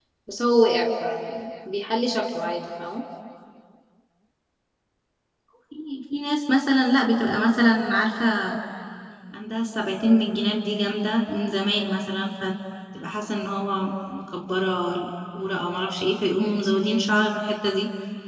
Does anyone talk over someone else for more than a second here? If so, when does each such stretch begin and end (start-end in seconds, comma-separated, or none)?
none